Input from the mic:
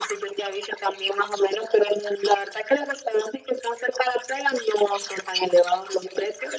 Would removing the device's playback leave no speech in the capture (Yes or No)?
Yes